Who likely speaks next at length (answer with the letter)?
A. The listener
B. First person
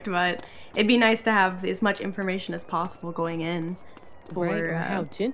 A